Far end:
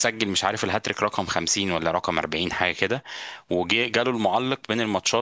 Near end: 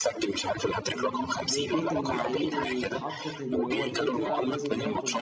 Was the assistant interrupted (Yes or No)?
Yes